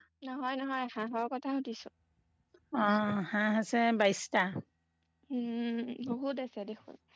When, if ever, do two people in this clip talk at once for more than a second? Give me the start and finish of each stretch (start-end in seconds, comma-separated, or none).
none